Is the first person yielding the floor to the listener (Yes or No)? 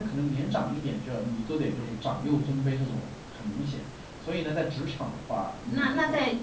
Yes